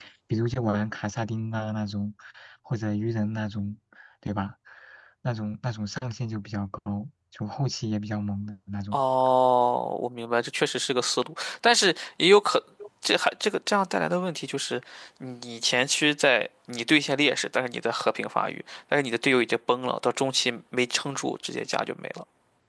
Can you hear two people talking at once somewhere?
No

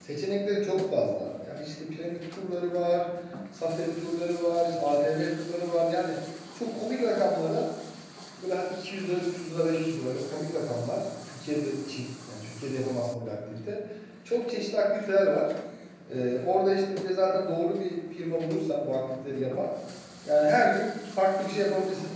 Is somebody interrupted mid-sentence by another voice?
No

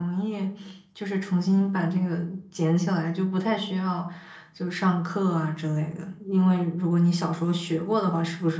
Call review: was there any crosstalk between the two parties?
No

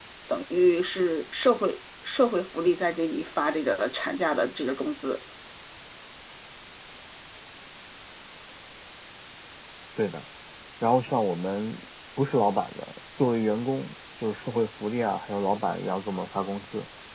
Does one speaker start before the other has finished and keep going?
No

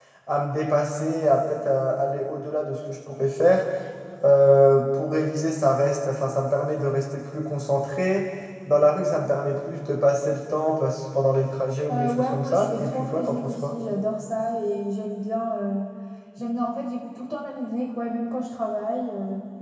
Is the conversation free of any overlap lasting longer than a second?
No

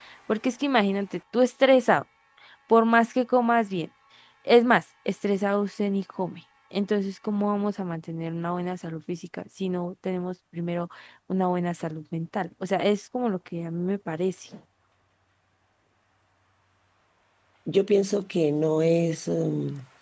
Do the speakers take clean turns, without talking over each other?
Yes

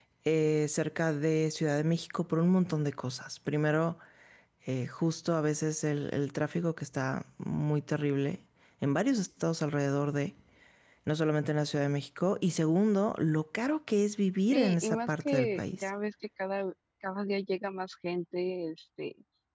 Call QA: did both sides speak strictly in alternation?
No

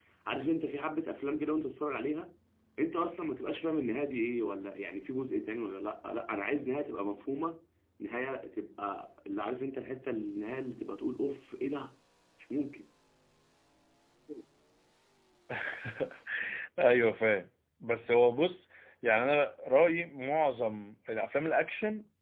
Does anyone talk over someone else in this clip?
No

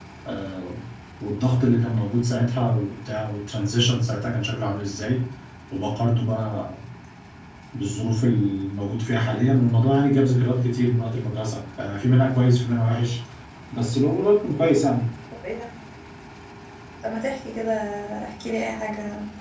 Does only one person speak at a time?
Yes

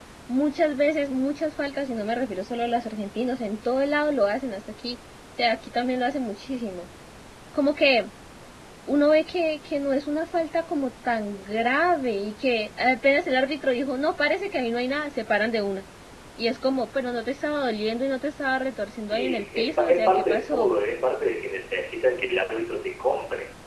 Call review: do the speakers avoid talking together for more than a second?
No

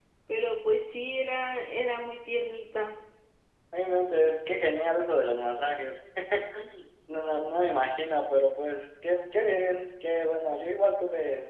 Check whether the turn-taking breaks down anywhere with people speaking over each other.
No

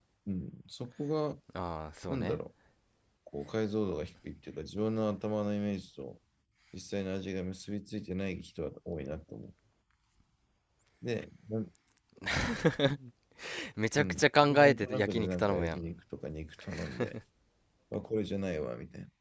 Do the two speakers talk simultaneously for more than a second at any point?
Yes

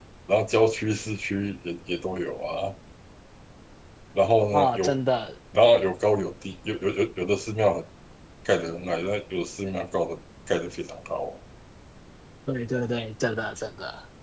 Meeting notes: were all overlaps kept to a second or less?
Yes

